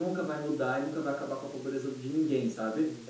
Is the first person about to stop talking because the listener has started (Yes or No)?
No